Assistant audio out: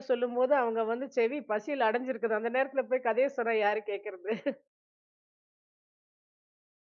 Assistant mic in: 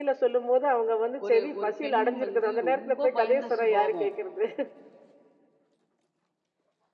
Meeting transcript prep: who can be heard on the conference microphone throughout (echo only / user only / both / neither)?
both